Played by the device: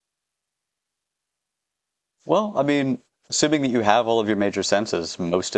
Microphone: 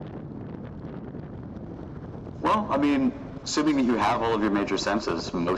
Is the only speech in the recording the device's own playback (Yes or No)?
Yes